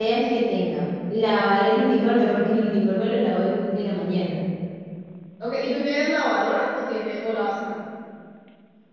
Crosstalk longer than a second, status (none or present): none